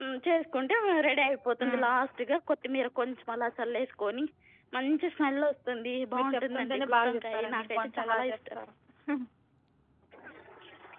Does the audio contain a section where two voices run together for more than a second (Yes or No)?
Yes